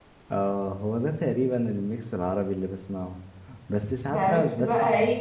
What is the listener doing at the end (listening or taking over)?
taking over